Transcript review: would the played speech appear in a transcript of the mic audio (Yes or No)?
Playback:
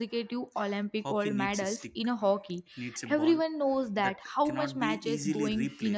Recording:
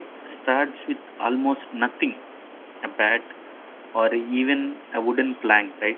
No